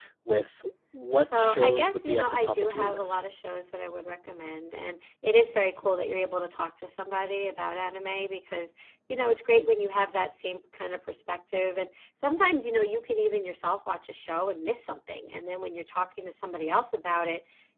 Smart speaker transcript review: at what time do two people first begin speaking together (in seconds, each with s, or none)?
1.2 s